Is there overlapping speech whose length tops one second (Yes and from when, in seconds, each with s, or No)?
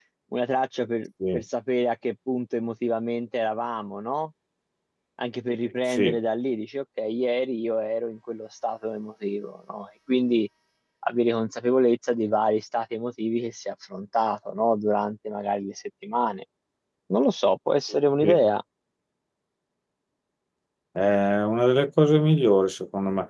No